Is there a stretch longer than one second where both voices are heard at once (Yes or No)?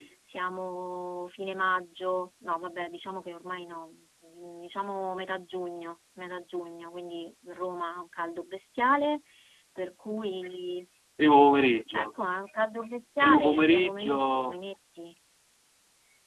Yes